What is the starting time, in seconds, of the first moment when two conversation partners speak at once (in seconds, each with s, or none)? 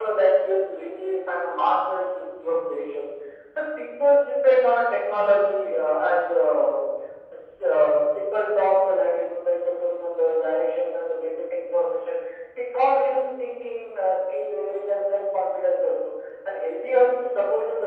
none